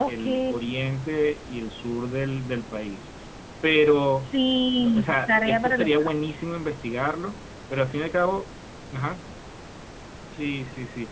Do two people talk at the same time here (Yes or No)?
Yes